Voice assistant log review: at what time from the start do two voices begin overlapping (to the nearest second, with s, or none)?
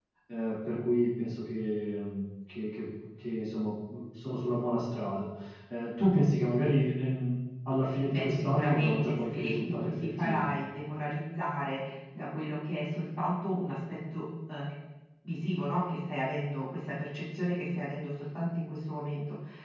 8 s